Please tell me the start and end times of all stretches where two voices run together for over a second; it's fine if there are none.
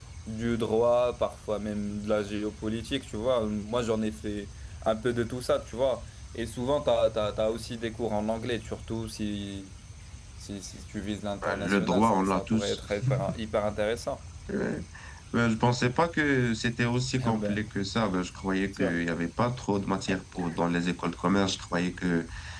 11.4-12.8

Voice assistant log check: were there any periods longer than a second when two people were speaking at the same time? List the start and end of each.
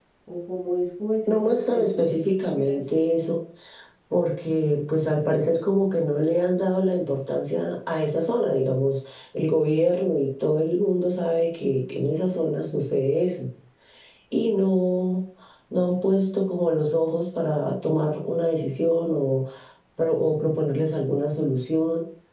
1.3-3.1

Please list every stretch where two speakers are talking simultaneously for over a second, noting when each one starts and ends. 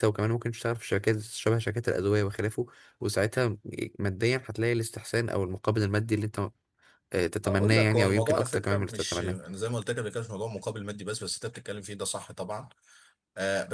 7.5-9.4

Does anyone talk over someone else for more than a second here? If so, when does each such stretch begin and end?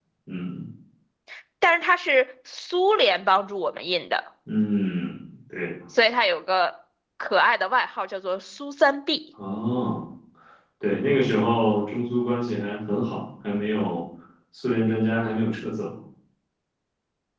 none

